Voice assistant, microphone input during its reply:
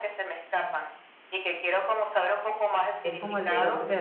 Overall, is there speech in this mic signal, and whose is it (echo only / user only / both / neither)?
both